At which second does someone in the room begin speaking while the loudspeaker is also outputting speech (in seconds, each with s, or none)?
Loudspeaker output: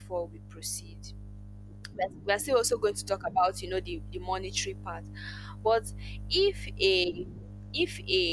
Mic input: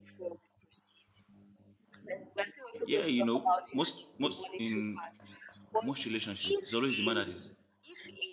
2.8 s